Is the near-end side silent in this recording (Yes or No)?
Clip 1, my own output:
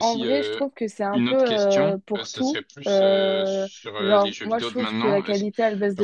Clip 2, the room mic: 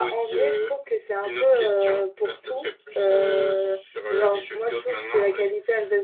Yes